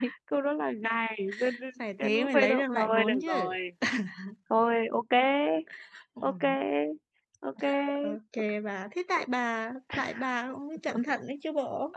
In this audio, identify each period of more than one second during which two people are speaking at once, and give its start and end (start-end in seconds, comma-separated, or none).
2.0-3.5